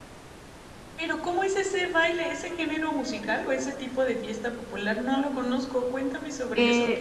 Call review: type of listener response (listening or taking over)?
taking over